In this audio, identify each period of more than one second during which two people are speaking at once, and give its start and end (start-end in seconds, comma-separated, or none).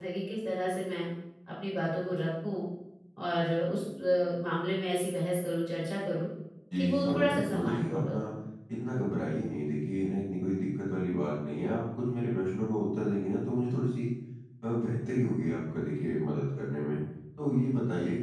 6.8-8.2